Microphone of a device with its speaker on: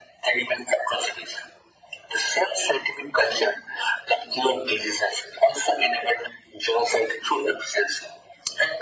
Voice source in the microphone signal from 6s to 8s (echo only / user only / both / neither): echo only